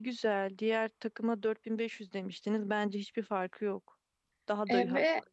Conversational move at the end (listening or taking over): taking over